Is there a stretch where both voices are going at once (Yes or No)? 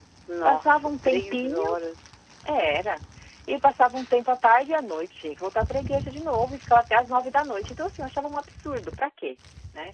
Yes